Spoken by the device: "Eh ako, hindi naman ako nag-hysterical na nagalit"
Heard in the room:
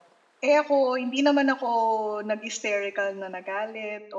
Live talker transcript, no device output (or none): none